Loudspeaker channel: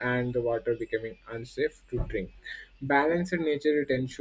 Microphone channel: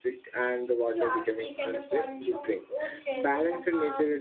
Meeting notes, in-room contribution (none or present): present